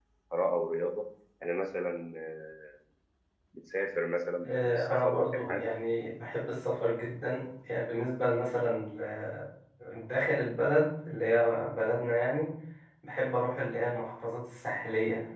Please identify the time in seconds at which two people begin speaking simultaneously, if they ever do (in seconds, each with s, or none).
4.4 s